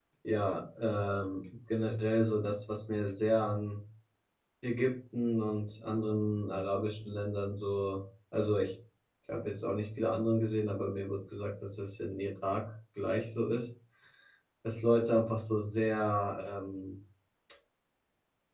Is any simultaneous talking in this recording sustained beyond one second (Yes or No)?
No